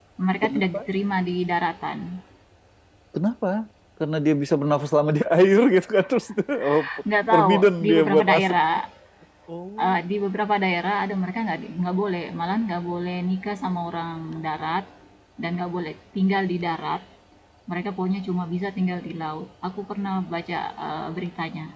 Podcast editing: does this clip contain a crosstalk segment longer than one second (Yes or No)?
Yes